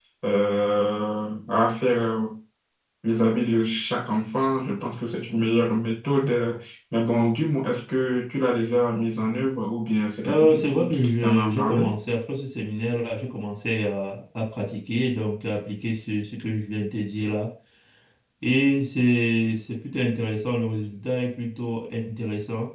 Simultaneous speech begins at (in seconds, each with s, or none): 10.2 s